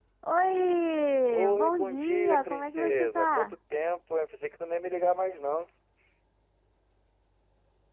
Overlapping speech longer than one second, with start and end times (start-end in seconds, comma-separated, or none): 1.3-3.5